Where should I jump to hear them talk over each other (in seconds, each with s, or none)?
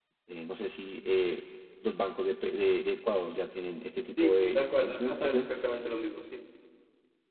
4.2 s